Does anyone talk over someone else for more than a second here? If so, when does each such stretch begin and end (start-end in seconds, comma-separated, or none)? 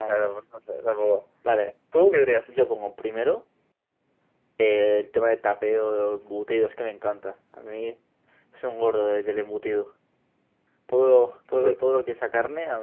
none